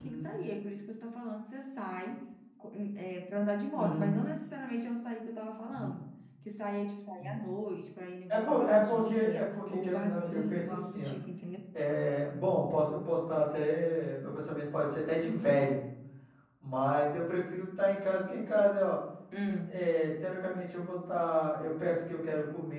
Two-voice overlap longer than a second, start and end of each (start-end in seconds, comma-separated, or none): 8.3-11.1